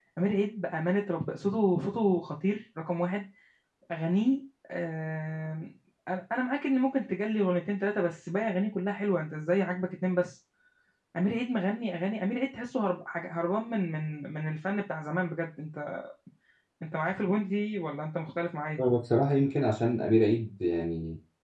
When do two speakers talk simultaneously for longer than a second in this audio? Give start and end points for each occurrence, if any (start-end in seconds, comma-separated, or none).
none